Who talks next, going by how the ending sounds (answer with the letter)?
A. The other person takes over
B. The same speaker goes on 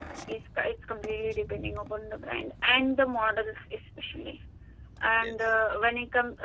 B